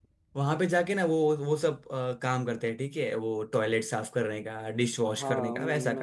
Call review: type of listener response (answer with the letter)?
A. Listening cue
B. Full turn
B